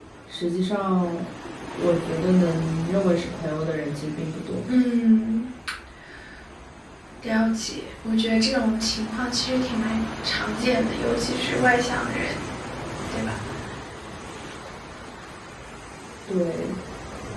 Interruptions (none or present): none